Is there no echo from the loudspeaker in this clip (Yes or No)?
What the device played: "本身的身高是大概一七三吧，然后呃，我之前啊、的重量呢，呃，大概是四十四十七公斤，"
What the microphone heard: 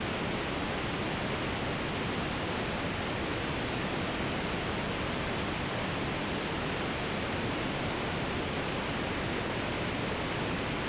Yes